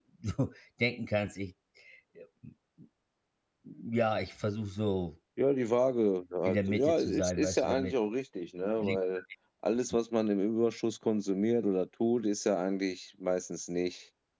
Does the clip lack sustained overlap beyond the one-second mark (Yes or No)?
No